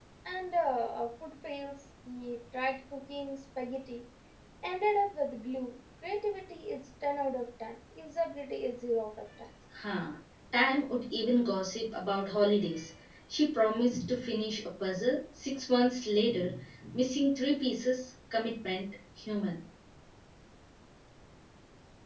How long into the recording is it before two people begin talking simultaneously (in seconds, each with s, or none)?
none